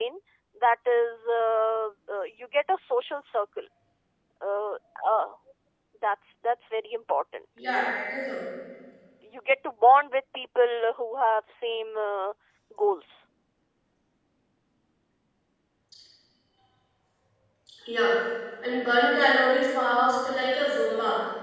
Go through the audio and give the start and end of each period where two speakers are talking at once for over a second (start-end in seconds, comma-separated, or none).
none